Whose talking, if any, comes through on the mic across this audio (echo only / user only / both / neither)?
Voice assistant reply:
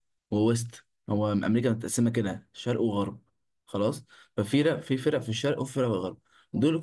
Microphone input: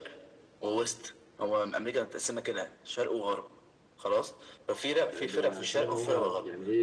both